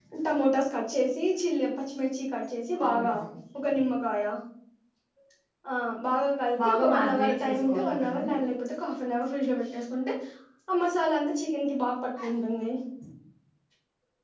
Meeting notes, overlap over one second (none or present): present